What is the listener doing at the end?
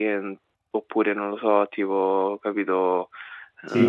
listening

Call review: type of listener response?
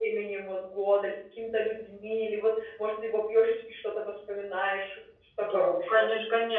taking over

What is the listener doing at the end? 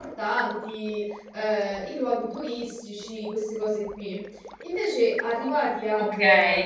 taking over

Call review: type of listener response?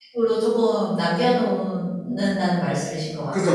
taking over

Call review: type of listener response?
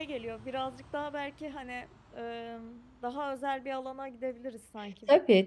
taking over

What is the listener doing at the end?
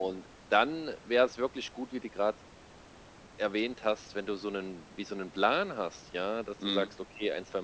listening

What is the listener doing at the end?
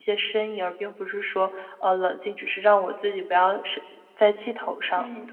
taking over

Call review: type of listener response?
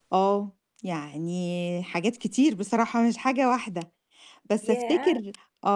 listening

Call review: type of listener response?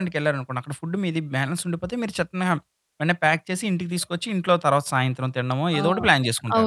taking over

